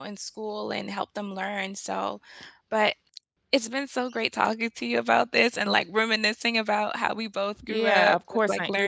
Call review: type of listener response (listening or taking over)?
taking over